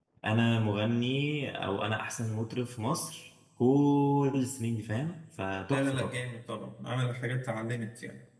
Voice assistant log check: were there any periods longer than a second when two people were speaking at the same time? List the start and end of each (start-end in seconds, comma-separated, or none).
none